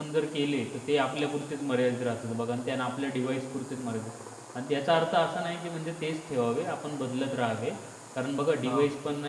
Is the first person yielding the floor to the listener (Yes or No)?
No